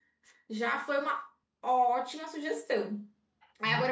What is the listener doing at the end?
listening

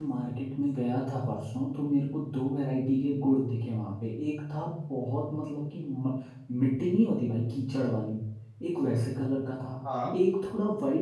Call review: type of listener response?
listening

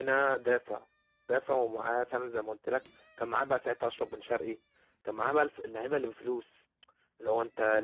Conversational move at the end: listening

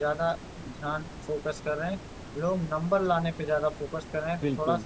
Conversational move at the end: listening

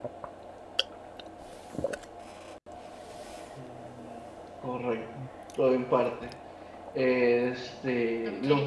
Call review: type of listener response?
listening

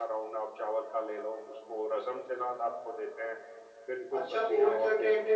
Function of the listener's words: taking over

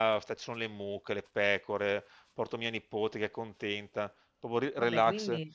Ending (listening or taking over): listening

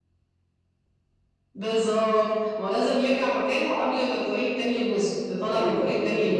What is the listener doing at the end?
taking over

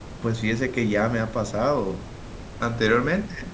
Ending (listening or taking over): listening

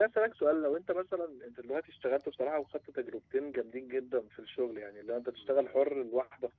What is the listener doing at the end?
listening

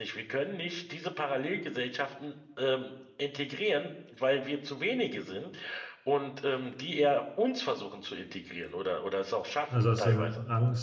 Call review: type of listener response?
taking over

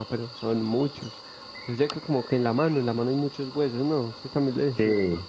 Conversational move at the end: taking over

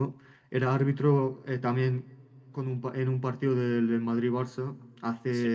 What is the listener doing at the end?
listening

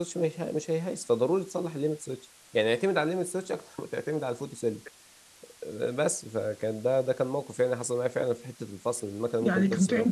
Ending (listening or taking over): taking over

